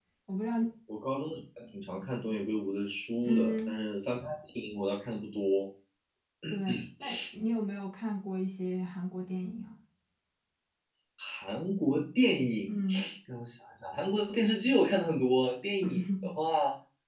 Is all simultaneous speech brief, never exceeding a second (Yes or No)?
Yes